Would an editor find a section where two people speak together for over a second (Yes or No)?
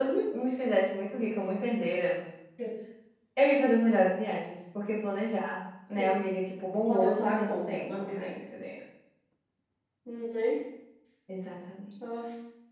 Yes